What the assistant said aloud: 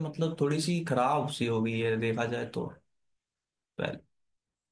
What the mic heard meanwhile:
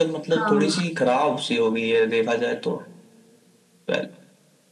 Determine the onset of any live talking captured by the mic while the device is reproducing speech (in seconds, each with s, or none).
0.3 s